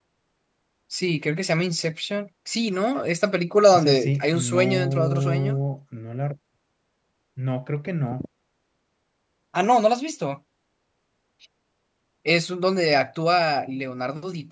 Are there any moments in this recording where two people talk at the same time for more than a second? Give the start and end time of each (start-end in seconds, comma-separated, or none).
3.7-5.6